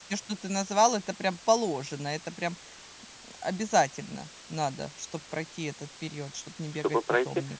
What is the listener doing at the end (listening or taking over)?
taking over